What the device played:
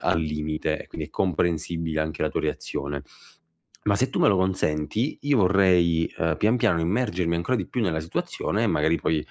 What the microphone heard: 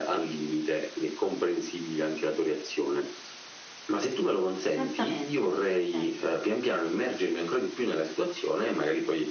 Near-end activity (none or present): present